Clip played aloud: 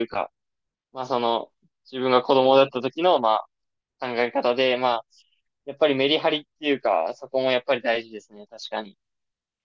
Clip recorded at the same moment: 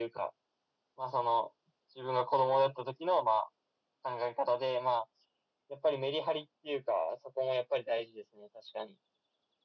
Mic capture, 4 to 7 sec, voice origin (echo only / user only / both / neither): echo only